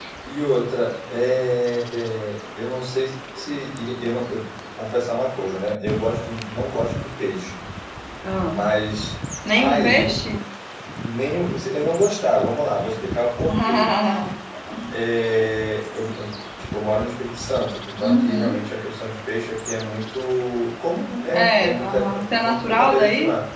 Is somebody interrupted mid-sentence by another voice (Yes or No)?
Yes